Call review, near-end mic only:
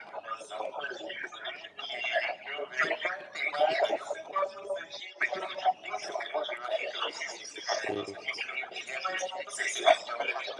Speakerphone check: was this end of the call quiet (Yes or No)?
No